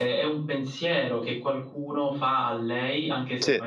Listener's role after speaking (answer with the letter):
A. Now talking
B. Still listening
B